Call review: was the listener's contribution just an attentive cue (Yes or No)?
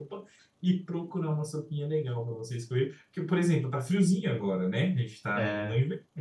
Yes